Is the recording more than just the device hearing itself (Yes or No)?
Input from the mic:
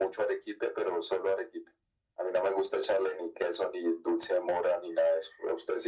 No